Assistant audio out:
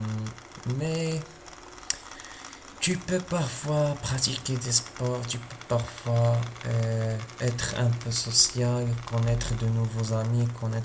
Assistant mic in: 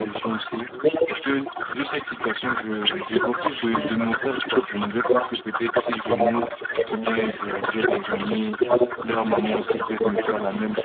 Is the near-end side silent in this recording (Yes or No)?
No